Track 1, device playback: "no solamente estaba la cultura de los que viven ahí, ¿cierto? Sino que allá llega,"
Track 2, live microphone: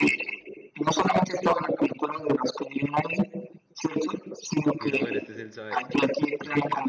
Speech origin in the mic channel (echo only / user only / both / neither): both